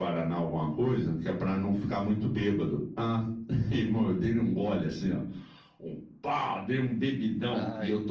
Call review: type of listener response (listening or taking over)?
listening